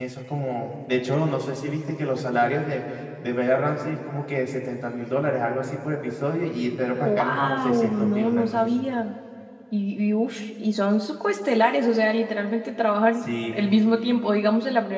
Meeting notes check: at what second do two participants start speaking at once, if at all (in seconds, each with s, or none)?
7.0 s